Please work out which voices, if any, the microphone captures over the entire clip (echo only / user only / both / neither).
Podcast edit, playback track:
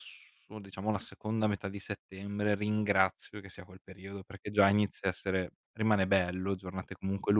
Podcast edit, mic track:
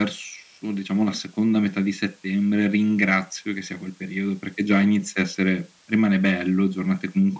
echo only